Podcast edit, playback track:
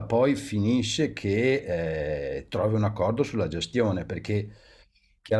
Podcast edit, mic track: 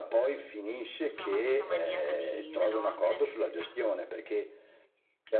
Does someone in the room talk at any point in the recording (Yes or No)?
Yes